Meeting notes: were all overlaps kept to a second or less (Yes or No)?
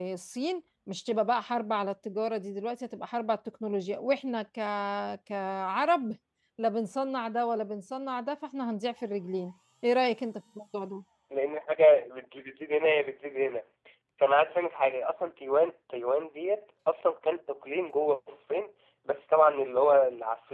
Yes